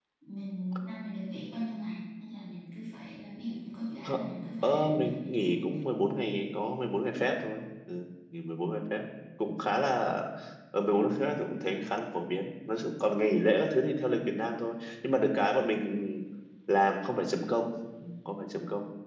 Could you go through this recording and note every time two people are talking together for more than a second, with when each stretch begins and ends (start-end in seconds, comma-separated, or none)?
4.6-5.8